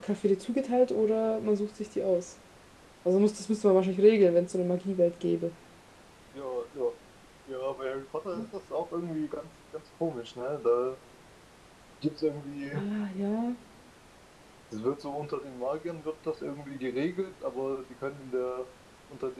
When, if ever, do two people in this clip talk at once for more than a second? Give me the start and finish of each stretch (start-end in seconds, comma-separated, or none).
none